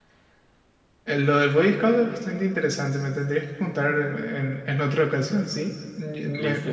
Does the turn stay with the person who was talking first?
Yes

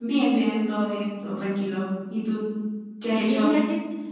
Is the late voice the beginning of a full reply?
Yes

